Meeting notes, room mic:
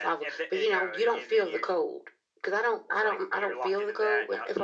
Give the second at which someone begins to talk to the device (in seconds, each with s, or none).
none